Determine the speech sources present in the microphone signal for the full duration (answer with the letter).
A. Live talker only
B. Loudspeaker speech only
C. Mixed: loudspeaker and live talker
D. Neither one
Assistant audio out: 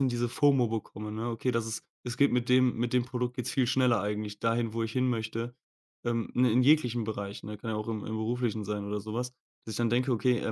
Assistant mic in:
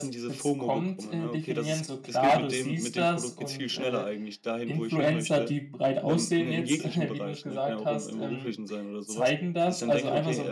C